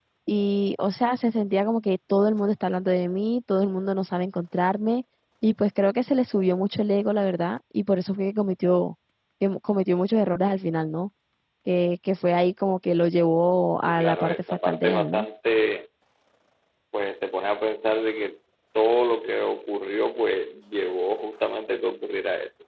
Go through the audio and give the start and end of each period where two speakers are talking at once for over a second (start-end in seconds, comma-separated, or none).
13.8-15.2